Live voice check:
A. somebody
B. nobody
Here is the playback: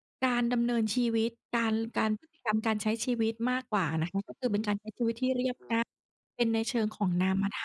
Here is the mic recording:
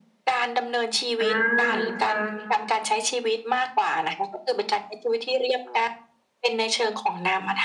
A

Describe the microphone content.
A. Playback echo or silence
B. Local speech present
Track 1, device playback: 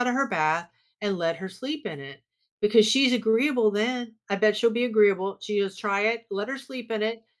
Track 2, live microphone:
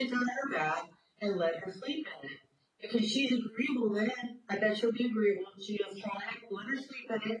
A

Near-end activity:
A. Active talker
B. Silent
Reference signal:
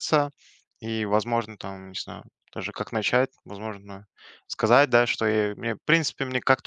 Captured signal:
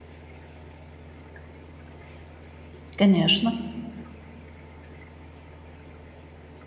A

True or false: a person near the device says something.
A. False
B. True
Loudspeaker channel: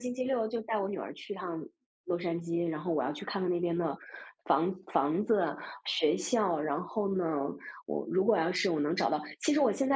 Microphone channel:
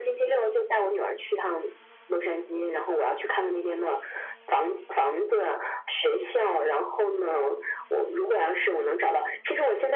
A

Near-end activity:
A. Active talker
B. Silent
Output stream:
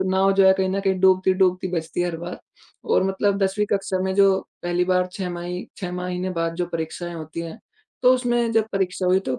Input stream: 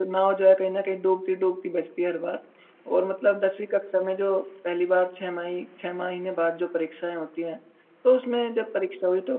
B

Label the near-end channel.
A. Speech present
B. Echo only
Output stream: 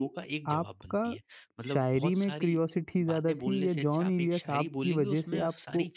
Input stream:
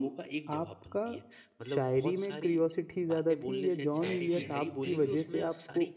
A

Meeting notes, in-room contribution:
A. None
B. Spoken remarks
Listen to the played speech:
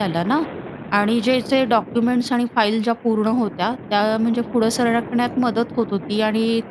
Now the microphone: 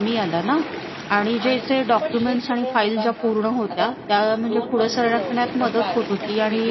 B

